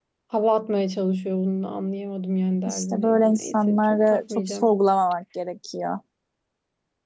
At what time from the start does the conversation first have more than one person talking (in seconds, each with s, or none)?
2.7 s